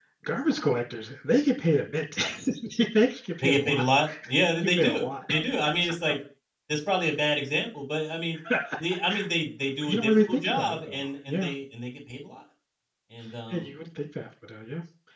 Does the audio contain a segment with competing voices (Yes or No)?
Yes